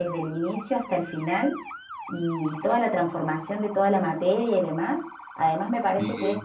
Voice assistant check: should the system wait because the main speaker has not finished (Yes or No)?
Yes